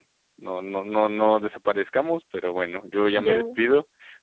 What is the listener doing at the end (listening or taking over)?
listening